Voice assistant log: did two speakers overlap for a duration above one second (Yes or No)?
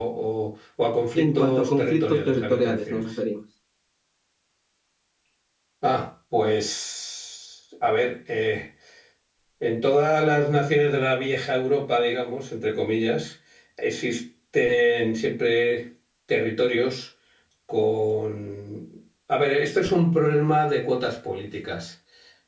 Yes